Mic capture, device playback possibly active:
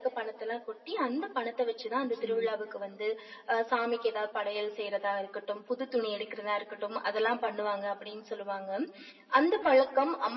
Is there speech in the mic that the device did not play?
Yes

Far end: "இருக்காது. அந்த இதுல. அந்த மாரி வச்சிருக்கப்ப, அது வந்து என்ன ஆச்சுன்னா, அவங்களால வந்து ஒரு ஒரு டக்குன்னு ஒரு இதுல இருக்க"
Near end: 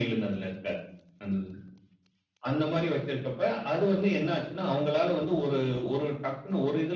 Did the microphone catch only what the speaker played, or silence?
Yes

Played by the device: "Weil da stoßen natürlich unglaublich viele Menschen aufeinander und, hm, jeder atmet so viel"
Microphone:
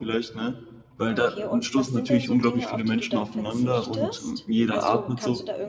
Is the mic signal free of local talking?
No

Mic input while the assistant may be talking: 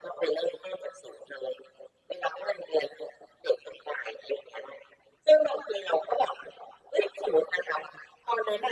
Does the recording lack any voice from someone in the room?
Yes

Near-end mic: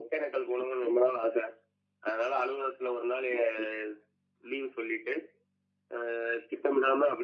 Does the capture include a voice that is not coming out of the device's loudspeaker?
No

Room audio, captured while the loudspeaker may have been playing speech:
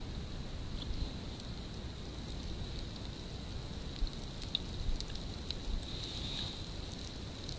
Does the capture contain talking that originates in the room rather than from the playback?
No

